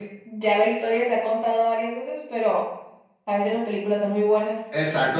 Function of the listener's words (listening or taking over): taking over